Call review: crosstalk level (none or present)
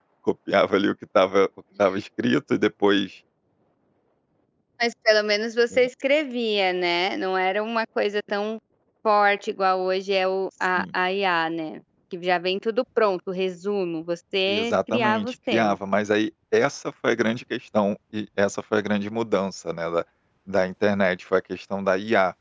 present